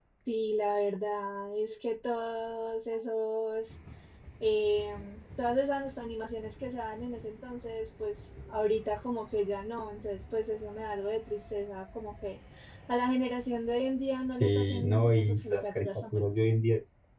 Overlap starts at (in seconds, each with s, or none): 14.3 s